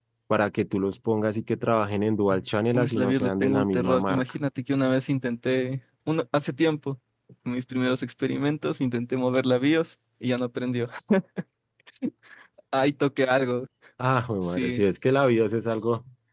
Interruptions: present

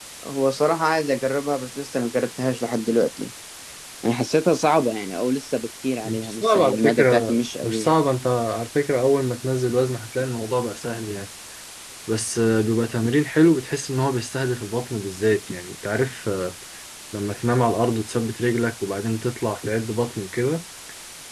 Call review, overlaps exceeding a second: present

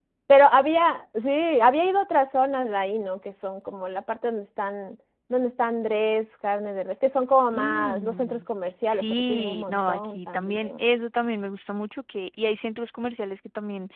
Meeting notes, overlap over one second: present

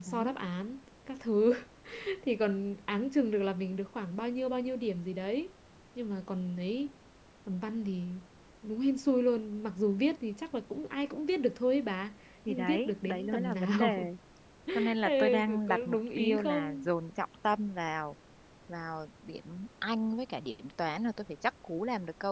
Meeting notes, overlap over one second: present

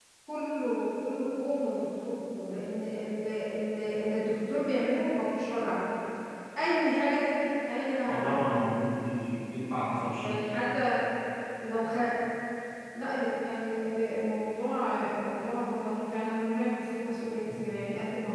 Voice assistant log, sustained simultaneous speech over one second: none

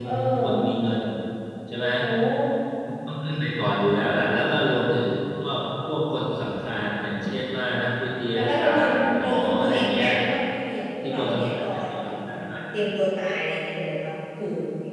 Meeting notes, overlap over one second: present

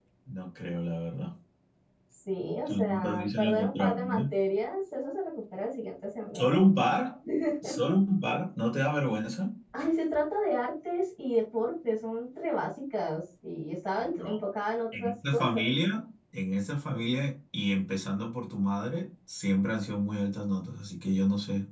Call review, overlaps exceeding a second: present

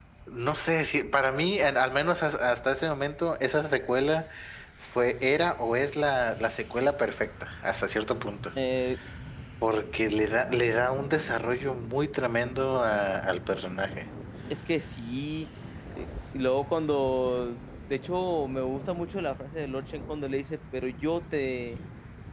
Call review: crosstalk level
none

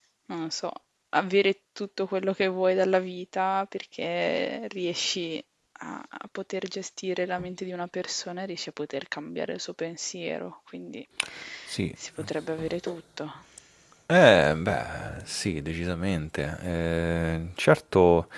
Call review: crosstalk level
none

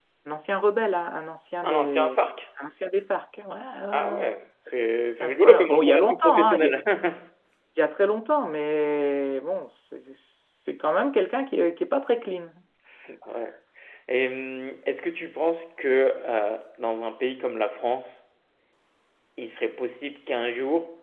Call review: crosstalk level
present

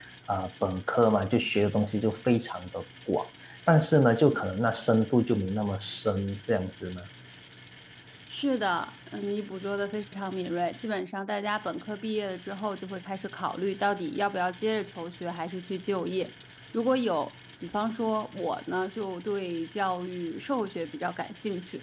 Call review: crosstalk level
none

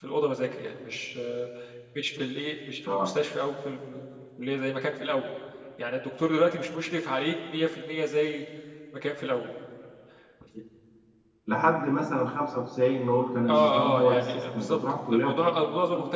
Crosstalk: present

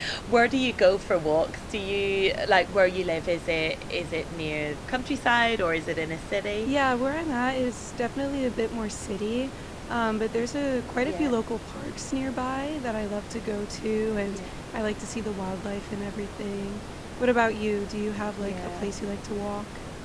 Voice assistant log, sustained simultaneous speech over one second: none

